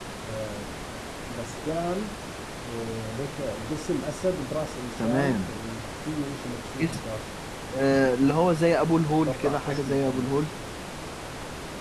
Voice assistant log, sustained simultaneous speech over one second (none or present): present